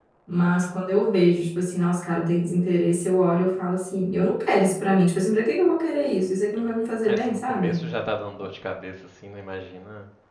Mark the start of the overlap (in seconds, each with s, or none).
6.5 s